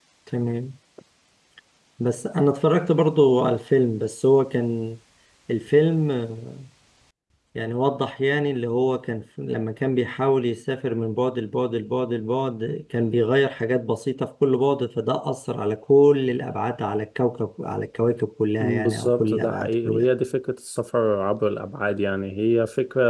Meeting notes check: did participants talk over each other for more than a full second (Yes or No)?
Yes